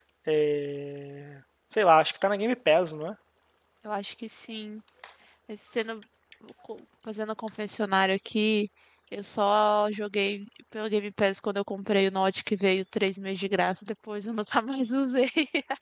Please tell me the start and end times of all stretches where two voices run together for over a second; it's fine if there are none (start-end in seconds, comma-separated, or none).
none